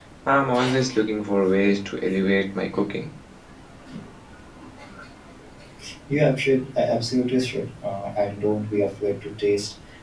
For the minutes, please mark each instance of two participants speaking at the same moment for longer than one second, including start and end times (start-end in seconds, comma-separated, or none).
none